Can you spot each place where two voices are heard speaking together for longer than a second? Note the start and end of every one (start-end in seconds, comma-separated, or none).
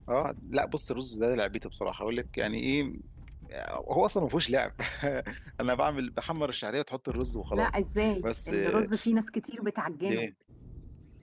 7.5-8.9